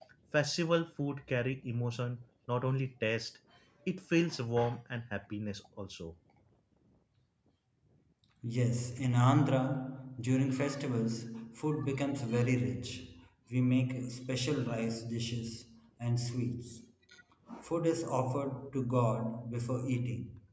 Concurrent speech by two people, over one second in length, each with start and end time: none

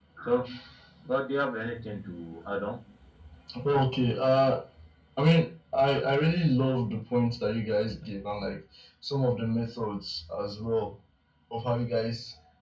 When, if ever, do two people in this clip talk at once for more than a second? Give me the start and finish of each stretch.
none

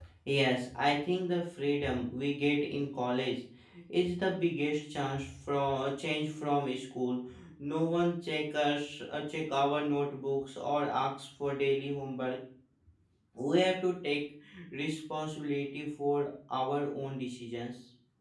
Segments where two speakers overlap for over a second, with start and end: none

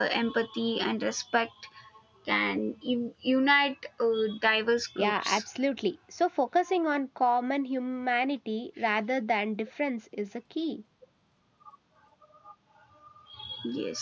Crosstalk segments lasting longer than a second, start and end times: none

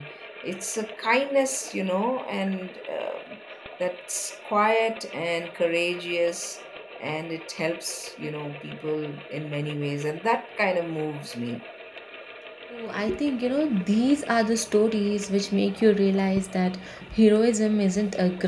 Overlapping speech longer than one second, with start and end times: none

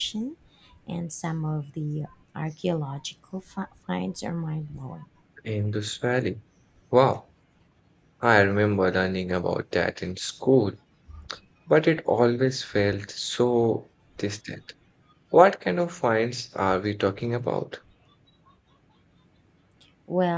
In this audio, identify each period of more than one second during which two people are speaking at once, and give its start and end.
none

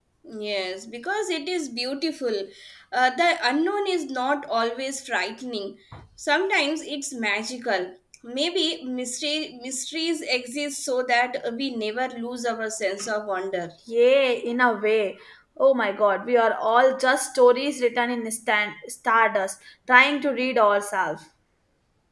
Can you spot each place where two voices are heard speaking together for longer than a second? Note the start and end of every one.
none

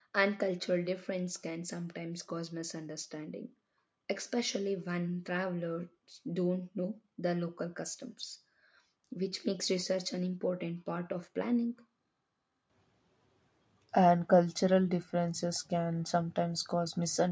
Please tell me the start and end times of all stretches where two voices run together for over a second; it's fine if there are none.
none

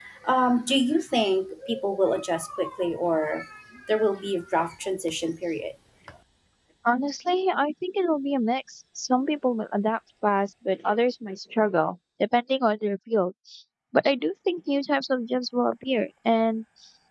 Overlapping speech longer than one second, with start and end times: none

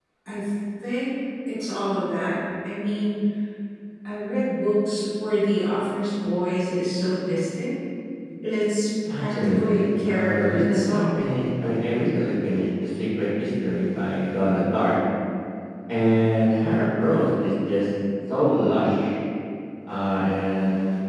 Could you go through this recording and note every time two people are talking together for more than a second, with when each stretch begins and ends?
9.1-11.2

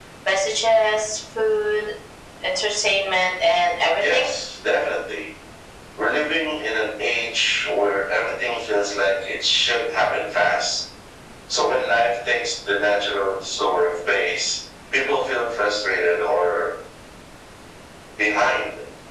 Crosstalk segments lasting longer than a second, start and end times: none

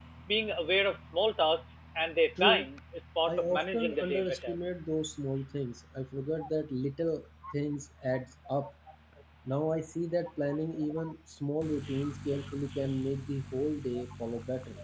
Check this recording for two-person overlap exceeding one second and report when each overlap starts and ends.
3.3-4.6

